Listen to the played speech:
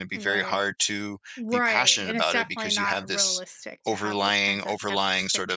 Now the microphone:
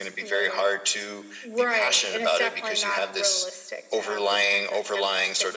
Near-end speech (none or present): none